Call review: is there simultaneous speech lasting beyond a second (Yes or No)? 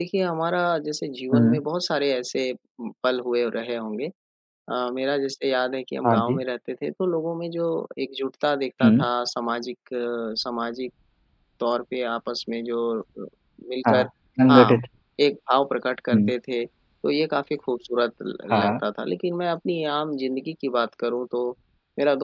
No